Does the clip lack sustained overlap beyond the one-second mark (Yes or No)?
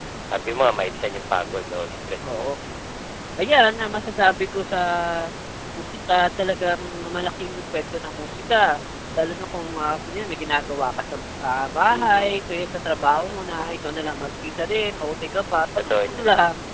Yes